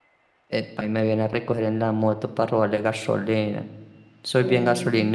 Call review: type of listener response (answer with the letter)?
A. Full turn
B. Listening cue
A